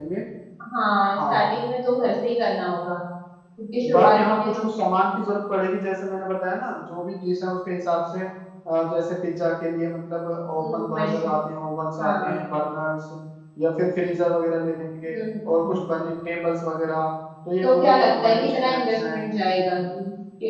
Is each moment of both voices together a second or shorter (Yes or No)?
No